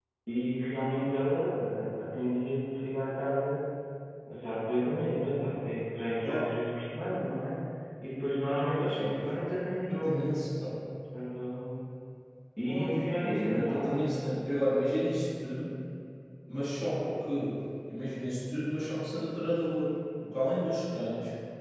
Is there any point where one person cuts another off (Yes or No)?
Yes